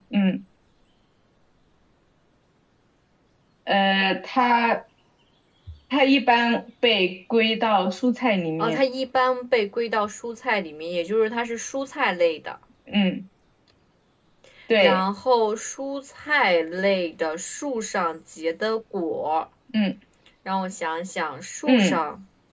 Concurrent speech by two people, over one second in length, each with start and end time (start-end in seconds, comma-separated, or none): none